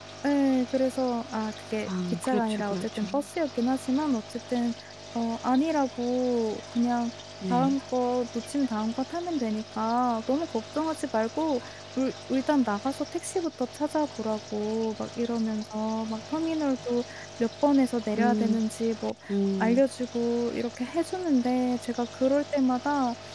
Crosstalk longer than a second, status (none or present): present